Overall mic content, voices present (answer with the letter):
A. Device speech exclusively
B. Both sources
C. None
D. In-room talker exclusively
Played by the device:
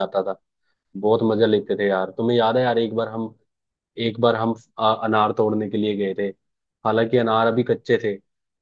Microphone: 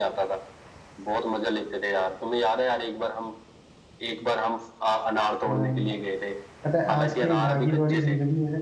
B